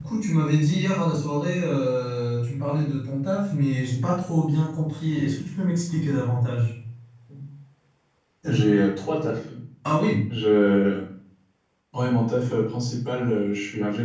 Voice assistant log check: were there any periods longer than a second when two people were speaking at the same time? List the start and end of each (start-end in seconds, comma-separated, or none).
none